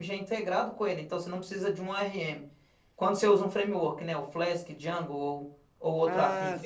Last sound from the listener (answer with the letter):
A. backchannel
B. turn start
B